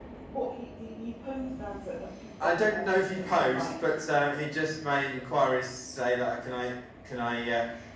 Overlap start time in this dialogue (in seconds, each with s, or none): 2.4 s